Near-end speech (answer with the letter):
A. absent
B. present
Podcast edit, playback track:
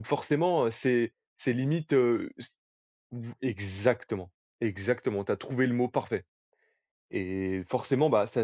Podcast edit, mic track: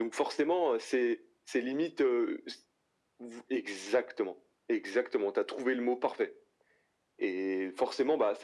A